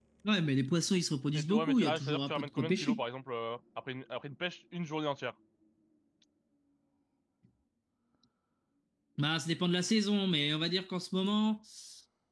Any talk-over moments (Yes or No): Yes